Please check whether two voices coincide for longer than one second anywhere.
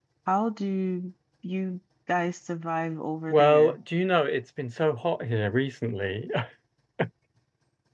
No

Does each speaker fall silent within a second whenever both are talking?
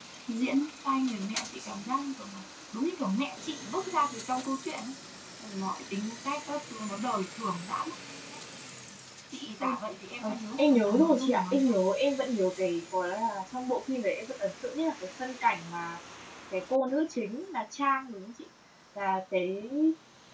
No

